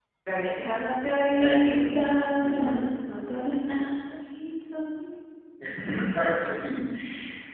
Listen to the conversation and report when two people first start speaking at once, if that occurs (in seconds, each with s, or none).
1.4 s